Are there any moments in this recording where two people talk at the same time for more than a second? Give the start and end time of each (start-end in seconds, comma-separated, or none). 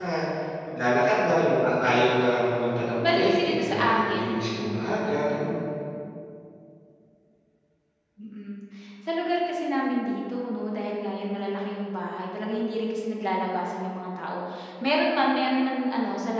3.0-4.8